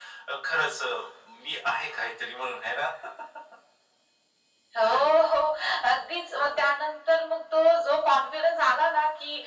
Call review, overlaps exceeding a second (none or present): none